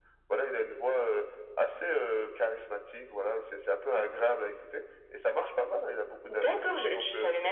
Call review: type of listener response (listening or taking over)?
taking over